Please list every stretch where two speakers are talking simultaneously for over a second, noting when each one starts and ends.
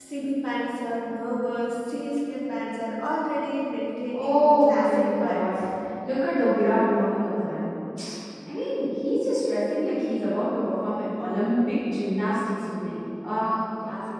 4.2-5.5

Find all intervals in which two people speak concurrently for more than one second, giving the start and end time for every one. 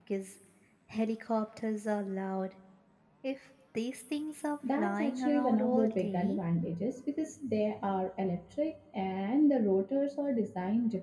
4.8-6.4

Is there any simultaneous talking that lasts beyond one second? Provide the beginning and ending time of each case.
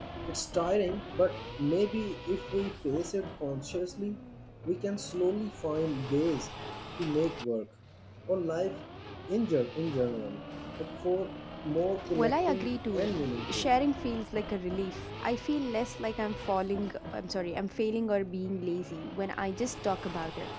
12.1-13.7

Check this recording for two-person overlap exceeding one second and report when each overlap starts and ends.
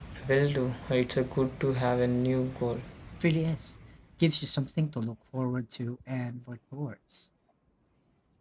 none

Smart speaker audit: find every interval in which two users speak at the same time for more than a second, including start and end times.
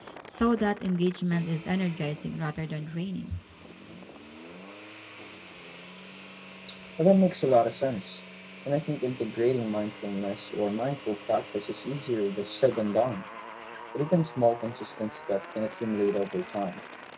none

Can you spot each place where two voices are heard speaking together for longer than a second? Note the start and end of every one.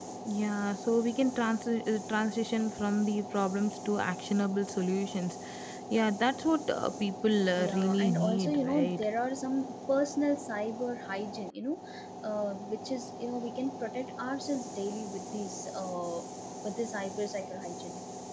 7.6-9.0

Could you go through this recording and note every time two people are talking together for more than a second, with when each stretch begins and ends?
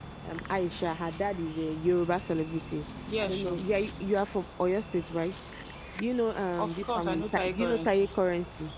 6.6-8.1

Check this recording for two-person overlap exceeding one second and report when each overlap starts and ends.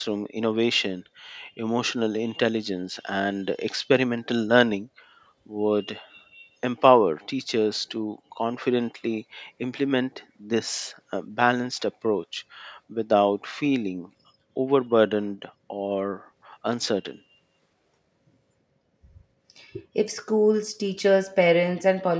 none

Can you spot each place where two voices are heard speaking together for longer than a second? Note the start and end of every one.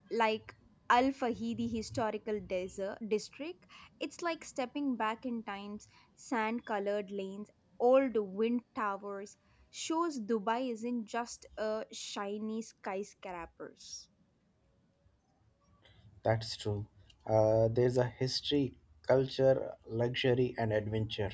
none

